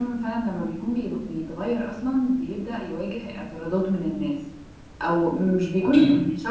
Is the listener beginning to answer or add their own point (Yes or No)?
No